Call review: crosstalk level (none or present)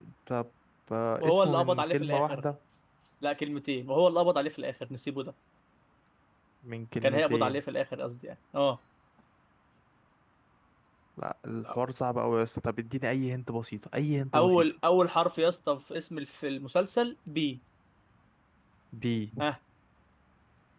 present